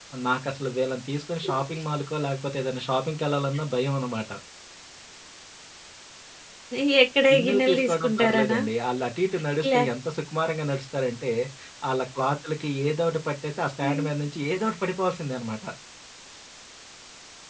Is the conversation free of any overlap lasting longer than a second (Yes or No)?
No